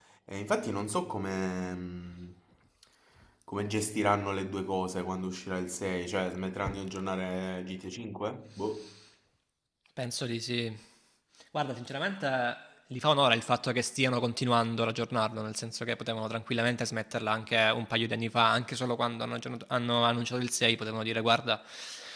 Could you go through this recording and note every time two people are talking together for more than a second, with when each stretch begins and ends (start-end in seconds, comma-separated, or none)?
none